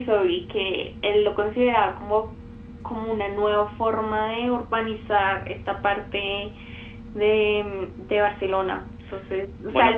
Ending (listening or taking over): listening